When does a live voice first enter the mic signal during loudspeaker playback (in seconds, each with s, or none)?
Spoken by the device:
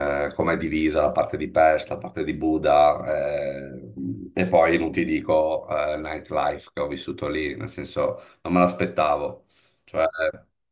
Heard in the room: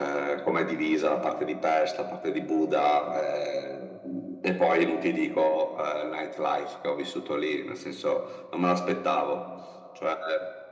none